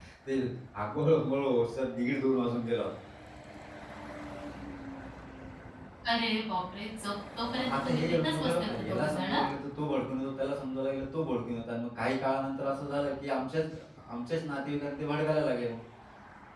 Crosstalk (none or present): present